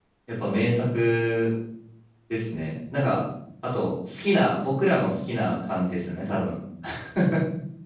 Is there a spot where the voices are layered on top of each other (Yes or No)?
No